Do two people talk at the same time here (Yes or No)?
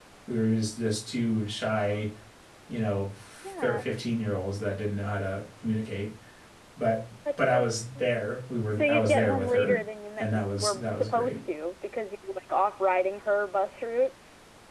Yes